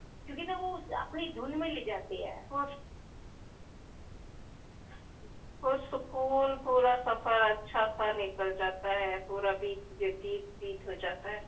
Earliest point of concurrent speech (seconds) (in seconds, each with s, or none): none